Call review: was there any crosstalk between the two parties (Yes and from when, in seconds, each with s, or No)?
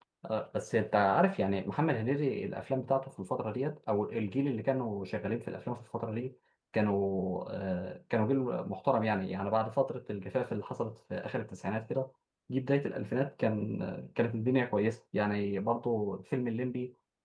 No